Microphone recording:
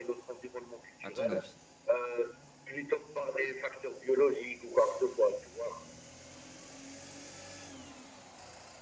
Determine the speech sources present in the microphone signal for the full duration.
both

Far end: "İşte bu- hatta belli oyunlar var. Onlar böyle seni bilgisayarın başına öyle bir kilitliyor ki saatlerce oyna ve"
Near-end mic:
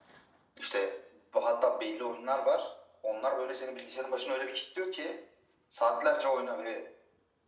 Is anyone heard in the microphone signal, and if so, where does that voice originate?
echo only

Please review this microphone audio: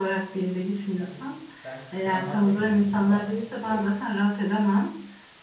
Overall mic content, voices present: both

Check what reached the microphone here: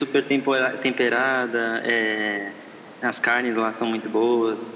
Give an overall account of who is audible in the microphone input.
echo only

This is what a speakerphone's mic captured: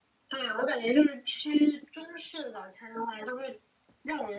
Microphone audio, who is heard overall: echo only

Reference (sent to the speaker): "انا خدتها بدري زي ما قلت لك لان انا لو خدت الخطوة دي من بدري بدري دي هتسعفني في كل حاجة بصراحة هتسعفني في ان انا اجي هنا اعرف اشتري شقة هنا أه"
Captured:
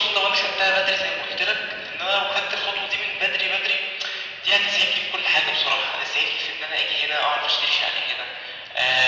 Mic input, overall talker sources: echo only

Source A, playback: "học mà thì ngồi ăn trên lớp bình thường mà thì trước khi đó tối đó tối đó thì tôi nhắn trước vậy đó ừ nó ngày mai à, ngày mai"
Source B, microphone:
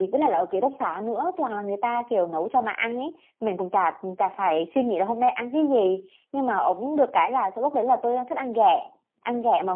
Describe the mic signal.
user only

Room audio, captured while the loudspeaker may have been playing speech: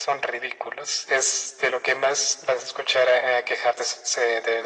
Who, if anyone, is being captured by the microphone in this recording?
echo only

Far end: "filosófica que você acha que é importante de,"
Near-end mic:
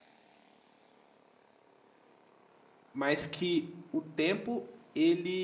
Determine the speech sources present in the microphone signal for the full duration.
user only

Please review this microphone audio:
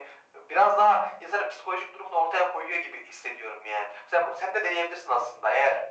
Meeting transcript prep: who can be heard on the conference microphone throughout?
echo only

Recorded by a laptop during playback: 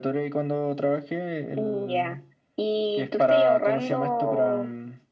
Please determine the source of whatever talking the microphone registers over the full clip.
echo only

